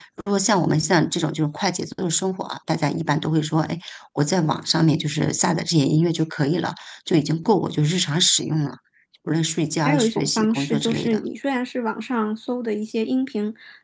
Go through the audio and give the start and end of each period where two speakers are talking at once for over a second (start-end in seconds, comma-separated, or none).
9.8-11.2